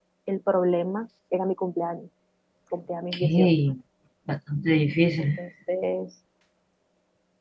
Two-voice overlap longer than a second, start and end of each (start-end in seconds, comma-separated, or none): none